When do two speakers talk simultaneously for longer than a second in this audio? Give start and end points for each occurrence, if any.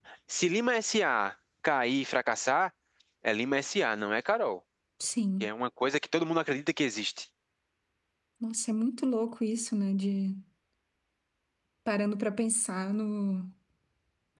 none

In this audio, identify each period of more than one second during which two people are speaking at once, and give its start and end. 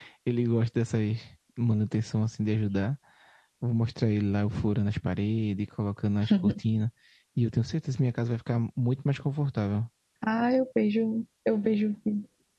none

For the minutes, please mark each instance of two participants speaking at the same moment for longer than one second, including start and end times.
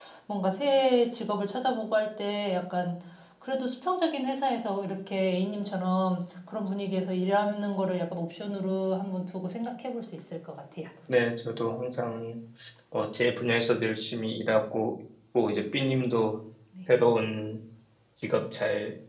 none

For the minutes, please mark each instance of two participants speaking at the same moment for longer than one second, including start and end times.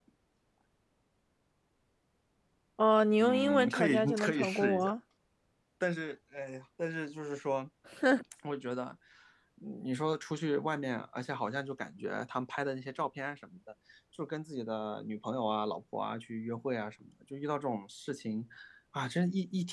3.2-4.9

